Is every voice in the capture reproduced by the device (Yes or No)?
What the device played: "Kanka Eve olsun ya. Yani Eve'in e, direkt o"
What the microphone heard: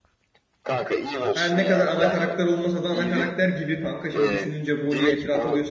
No